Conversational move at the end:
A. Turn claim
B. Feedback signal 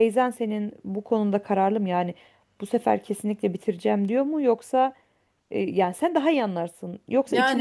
B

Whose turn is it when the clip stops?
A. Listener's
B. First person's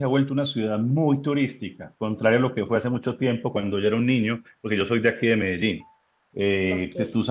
B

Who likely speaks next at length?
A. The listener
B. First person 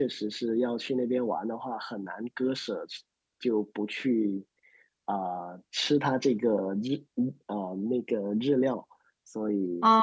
A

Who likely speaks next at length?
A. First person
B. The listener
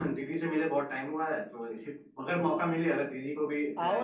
B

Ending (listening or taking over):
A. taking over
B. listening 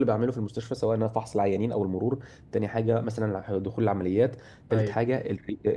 B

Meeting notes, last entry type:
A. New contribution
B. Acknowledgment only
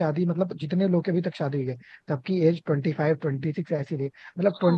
B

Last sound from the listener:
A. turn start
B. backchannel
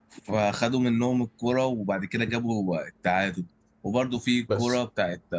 B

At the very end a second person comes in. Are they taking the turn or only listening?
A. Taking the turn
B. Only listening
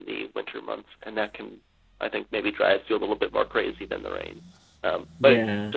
B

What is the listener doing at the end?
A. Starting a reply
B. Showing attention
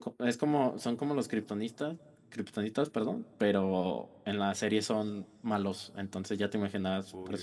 B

